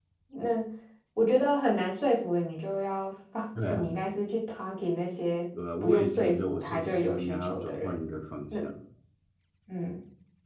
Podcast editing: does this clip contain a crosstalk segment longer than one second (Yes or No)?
Yes